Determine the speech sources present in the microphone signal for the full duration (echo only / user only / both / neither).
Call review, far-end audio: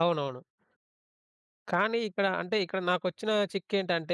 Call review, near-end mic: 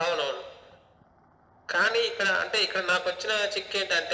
echo only